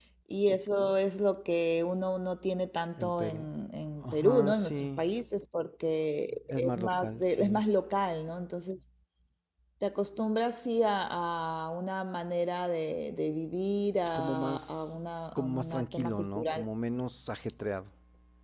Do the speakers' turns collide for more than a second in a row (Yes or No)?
Yes